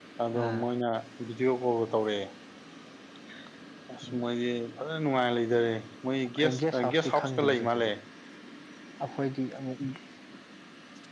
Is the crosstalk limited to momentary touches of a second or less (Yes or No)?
No